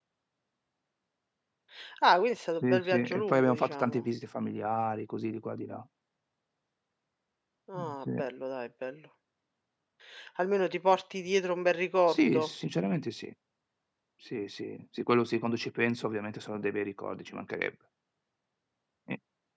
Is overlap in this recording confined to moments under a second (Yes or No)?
No